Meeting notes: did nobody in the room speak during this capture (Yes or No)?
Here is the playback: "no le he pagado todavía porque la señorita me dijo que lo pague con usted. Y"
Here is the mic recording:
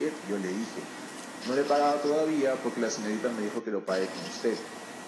Yes